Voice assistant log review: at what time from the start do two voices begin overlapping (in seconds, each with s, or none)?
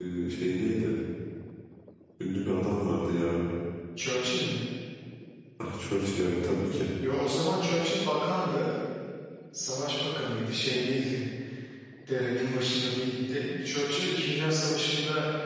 none